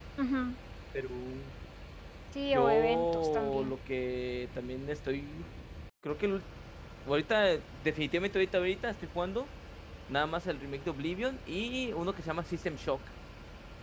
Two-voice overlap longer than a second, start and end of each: 2.5-3.7

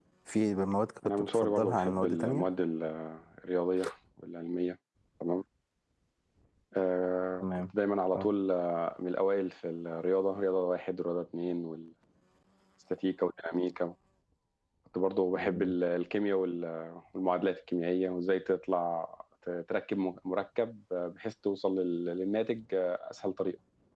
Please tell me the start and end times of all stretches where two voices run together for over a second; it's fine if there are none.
1.2-2.5

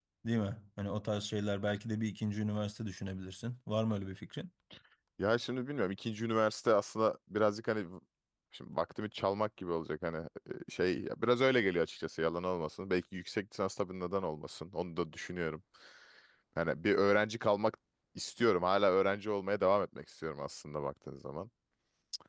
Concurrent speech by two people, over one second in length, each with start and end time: none

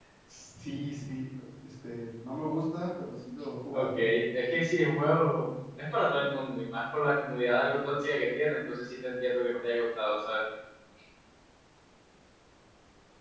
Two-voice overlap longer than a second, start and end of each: none

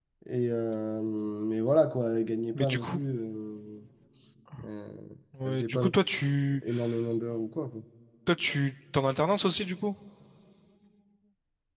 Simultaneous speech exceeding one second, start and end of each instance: none

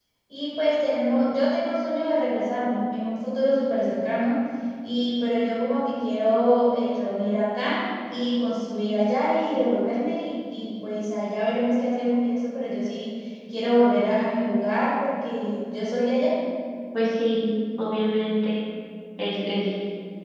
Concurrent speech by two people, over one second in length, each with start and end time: none

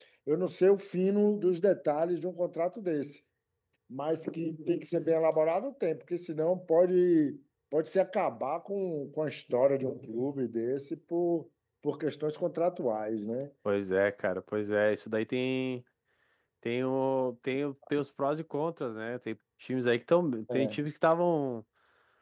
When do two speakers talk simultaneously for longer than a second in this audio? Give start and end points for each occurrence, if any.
none

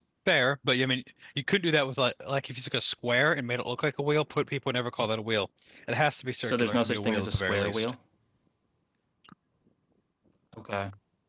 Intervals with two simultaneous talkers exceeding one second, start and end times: 6.4-7.9

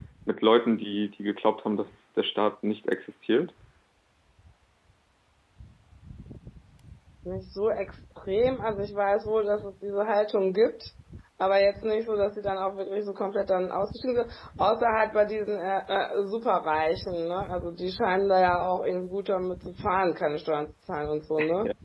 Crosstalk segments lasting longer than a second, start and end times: none

